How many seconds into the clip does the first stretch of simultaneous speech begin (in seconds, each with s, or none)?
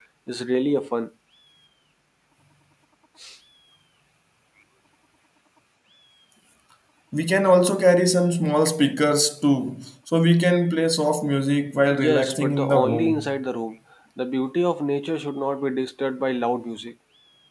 11.9 s